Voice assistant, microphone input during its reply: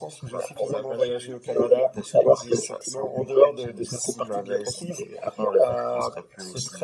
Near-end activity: none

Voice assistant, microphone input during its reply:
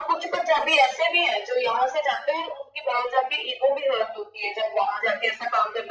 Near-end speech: none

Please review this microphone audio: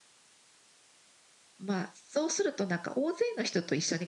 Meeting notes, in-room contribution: present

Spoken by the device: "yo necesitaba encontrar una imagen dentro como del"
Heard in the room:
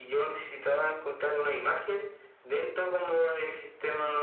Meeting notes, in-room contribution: none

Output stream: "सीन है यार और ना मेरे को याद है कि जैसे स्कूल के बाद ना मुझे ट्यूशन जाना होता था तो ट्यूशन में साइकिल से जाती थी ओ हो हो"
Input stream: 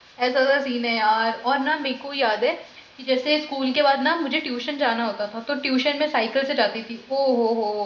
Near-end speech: none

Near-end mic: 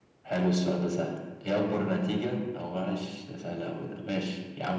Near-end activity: none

